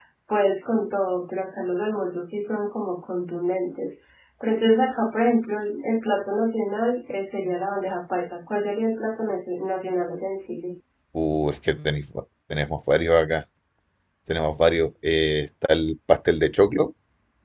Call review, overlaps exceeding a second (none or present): none